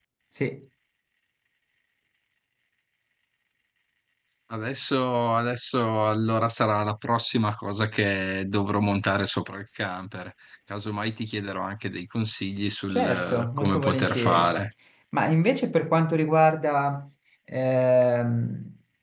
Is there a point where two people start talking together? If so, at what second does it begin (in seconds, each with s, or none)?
12.9 s